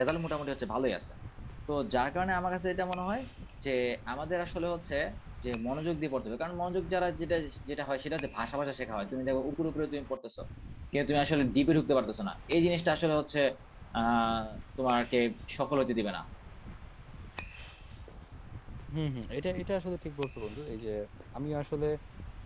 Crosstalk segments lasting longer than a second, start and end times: none

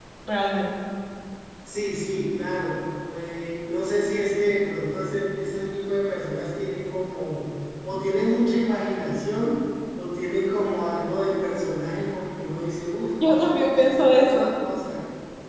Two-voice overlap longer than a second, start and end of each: 13.2-14.5

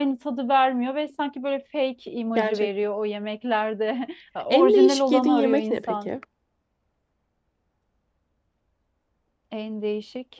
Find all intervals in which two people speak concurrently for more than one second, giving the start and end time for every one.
4.5-6.1

